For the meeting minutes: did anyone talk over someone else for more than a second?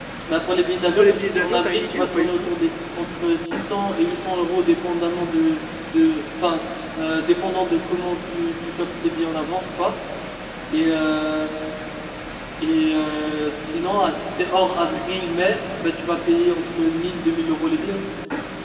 Yes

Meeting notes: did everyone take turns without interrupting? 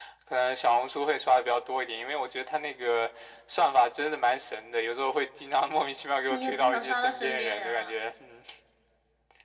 No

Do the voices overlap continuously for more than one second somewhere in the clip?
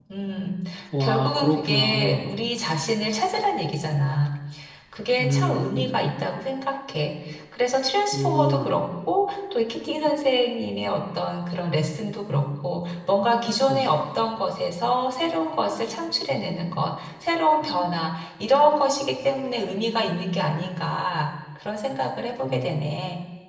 Yes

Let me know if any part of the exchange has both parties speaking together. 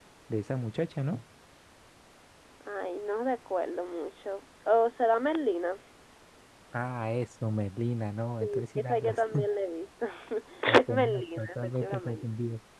Yes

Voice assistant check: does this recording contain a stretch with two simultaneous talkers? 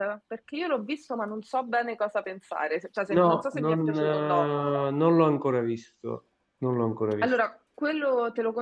Yes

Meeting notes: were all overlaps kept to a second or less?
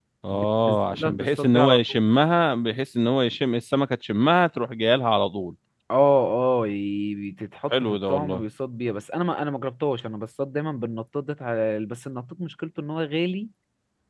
No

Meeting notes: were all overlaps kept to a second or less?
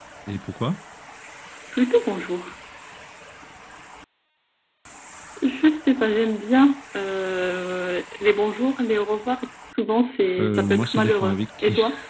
No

